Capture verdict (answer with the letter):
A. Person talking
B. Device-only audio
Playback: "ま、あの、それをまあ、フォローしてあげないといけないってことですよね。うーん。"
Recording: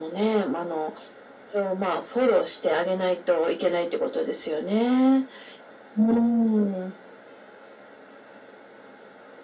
B